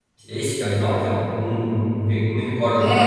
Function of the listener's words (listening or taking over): taking over